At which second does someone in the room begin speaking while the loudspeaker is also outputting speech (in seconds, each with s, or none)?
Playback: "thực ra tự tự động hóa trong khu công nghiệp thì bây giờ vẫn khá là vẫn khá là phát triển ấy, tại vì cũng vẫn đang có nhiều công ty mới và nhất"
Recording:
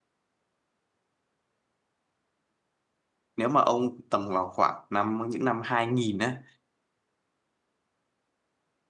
3.4 s